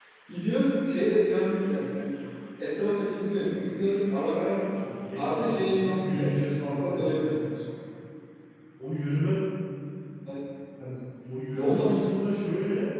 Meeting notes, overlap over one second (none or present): present